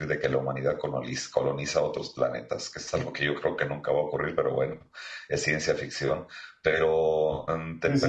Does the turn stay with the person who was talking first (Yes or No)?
No